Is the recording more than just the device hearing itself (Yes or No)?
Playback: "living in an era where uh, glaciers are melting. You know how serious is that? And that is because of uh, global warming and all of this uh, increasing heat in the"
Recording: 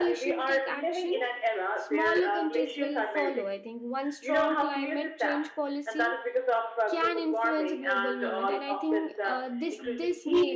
Yes